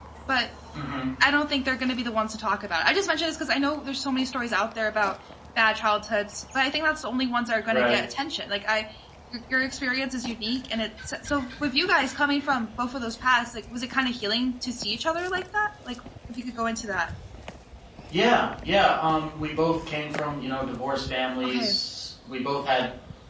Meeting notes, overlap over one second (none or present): none